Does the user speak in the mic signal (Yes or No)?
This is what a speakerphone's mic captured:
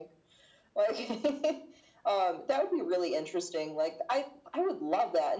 No